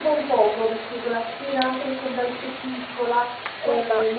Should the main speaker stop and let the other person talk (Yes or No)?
Yes